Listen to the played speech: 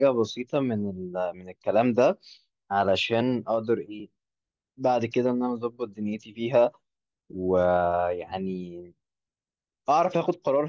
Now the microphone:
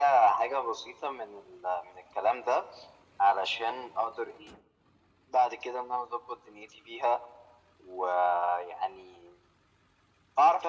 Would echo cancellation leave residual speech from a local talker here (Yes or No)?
No